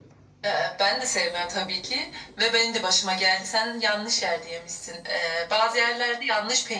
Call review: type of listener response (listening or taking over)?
listening